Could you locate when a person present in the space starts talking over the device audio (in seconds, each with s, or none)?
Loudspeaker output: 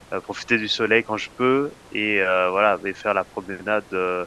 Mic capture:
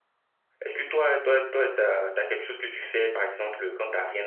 0.7 s